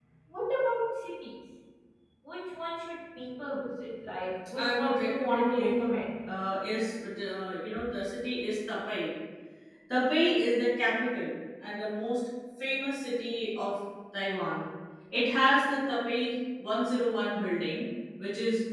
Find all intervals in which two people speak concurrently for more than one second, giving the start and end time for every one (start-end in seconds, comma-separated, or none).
4.6-5.8